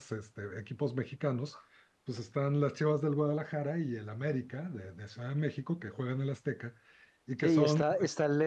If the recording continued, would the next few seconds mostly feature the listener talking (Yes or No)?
Yes